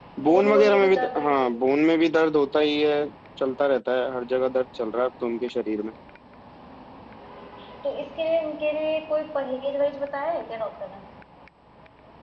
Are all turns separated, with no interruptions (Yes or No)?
No